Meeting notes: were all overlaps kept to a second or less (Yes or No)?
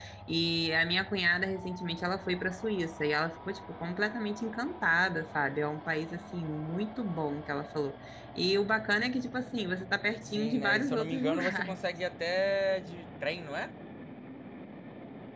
No